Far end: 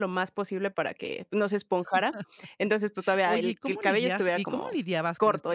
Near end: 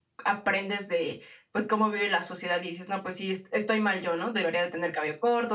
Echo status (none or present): none